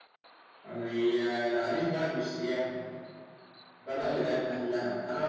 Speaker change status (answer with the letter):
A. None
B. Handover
A